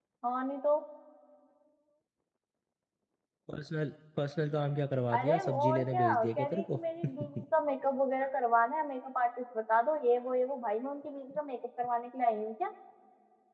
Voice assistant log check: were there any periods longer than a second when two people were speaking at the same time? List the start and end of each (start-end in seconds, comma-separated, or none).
5.1-6.8